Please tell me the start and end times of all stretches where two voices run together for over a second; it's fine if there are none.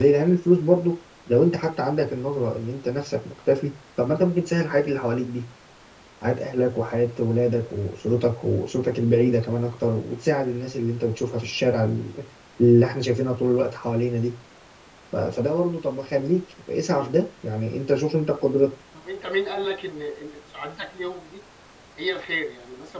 none

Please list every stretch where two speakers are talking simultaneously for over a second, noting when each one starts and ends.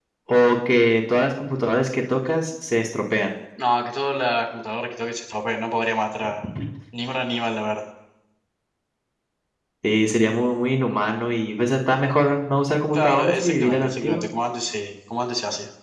12.9-14.2

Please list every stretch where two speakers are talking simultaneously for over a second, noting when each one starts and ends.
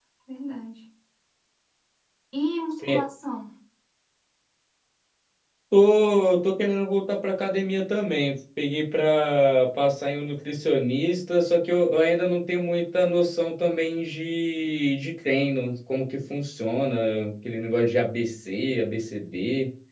none

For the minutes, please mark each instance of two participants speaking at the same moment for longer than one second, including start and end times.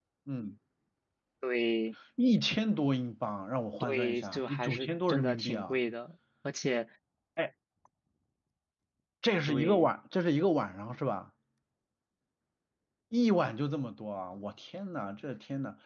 3.8-5.8

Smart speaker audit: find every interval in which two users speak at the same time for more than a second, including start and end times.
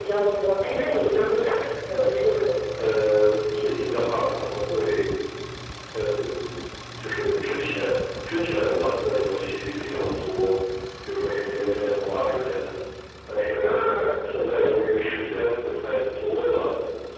none

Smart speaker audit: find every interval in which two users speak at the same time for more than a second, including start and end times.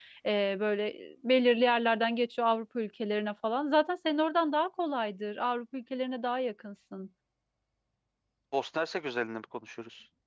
none

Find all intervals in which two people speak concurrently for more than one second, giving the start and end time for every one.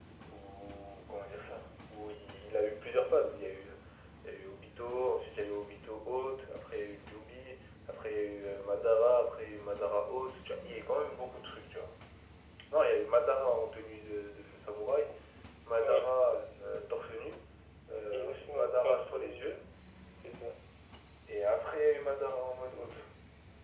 18.1-19.4

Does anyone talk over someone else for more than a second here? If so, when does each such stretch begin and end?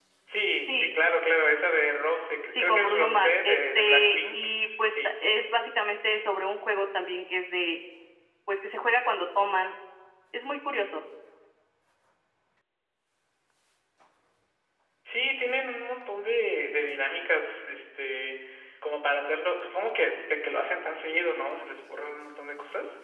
2.5-4.5

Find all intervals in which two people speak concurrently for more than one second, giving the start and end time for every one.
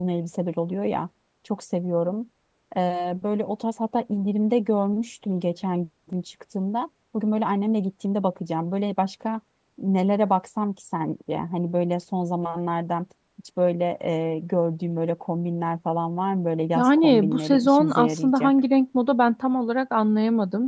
16.8-18.5

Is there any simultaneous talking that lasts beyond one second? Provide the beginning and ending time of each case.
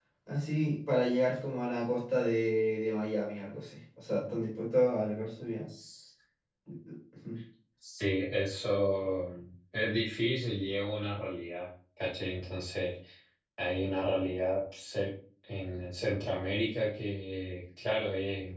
none

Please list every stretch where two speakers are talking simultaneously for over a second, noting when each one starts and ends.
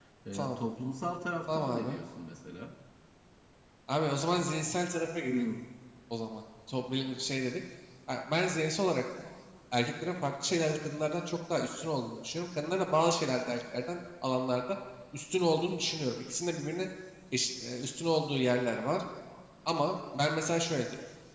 none

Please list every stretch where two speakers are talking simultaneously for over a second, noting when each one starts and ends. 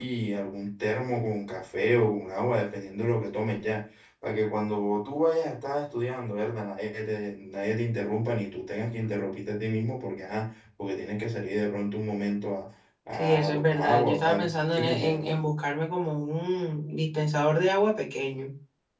13.1-15.3

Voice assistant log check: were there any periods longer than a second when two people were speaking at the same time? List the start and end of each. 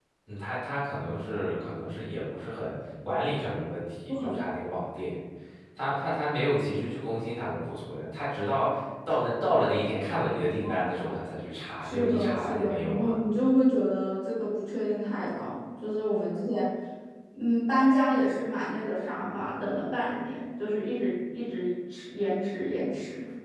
11.8-13.2

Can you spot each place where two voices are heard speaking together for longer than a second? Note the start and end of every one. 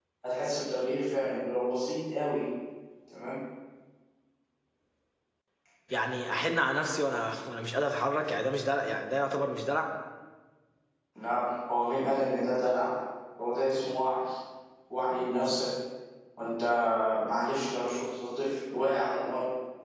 none

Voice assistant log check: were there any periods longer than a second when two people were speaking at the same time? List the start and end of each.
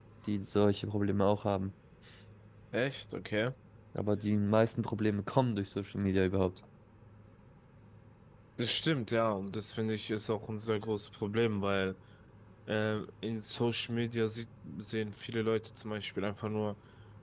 none

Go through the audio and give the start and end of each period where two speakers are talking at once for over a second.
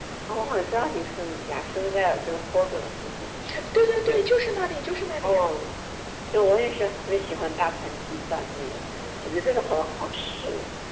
none

